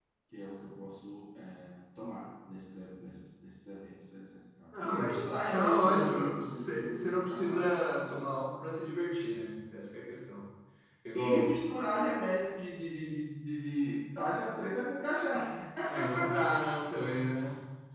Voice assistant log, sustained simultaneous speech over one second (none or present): present